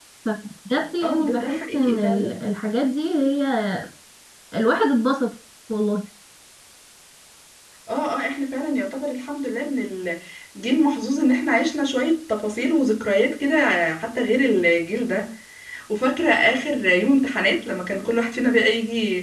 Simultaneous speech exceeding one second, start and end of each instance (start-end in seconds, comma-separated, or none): 1.0-2.4